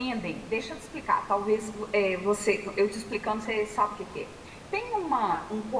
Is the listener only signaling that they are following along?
Yes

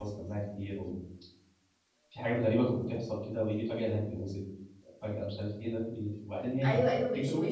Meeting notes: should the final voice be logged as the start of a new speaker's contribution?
Yes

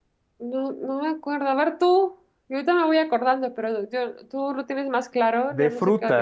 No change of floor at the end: No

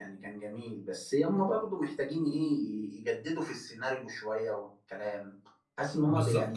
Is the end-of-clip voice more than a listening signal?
Yes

